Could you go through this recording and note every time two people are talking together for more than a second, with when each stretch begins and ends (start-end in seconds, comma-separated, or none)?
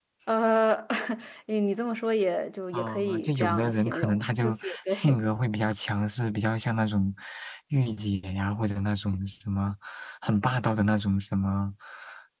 2.7-5.2